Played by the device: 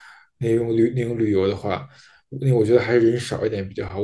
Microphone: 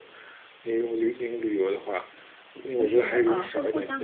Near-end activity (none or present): present